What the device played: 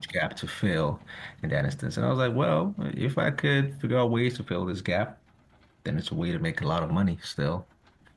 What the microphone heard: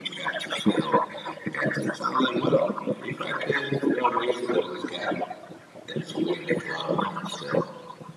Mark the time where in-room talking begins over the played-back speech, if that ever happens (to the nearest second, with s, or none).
none